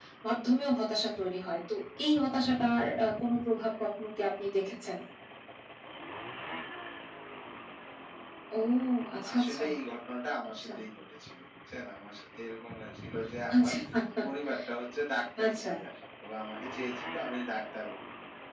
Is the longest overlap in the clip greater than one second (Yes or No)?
No